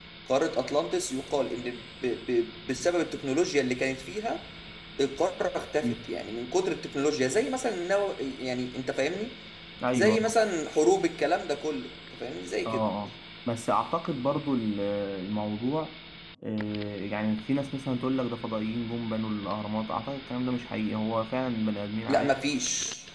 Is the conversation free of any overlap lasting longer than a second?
Yes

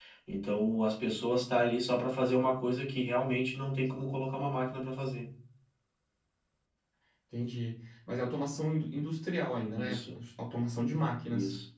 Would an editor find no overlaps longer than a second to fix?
Yes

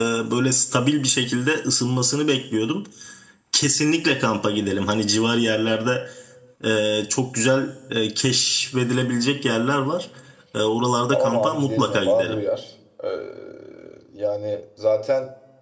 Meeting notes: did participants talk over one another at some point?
Yes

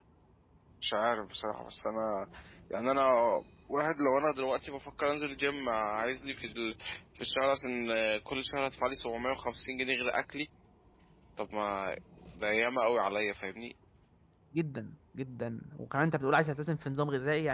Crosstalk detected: No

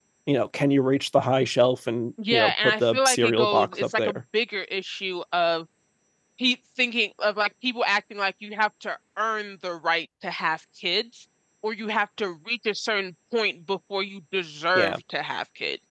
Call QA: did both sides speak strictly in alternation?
No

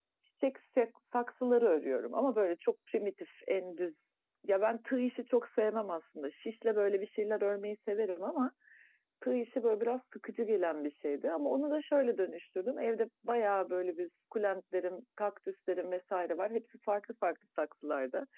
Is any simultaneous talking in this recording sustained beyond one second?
No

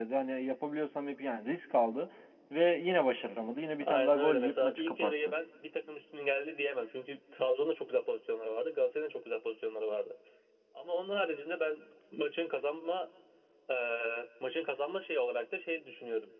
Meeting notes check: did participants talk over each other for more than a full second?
Yes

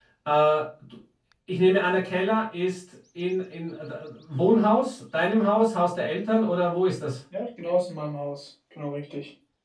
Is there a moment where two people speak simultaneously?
No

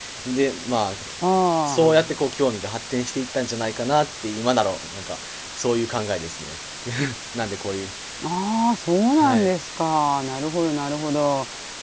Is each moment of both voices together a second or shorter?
Yes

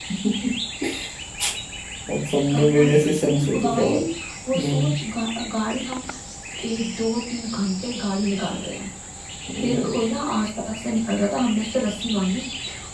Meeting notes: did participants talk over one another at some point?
Yes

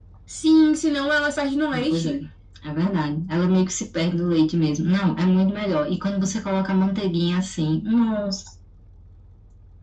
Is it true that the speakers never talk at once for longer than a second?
Yes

